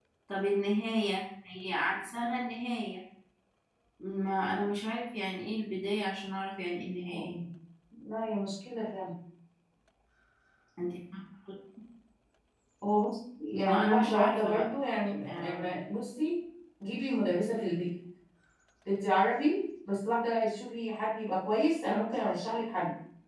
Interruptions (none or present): present